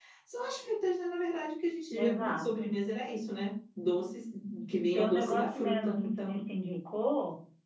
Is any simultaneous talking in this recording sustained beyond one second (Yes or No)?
Yes